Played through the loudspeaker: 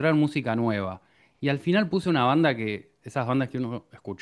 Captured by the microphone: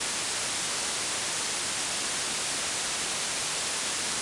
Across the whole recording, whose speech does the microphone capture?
neither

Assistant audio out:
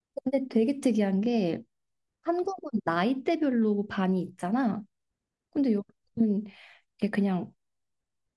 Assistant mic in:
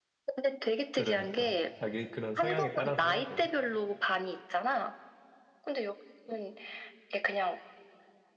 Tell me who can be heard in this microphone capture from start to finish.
both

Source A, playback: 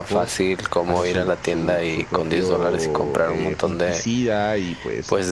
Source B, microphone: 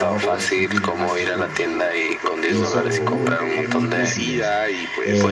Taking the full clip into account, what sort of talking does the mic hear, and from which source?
both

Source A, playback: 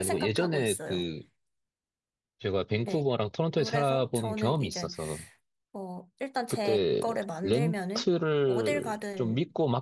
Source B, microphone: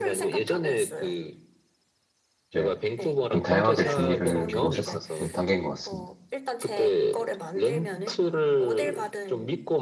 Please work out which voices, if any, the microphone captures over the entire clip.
both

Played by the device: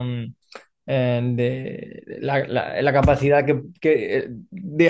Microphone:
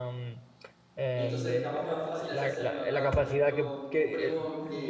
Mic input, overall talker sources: both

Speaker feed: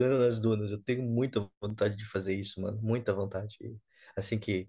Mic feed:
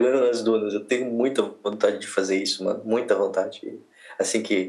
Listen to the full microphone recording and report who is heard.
echo only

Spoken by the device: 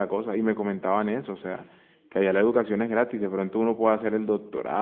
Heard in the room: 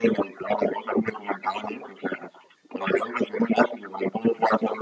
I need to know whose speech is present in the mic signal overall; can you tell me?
echo only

